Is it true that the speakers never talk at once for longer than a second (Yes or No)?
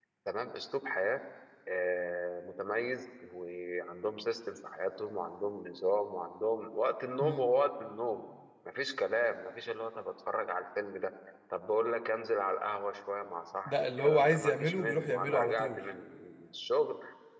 No